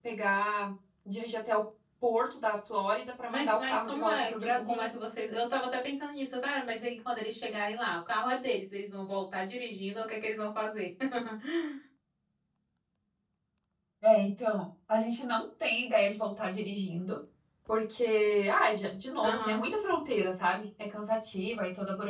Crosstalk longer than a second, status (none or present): present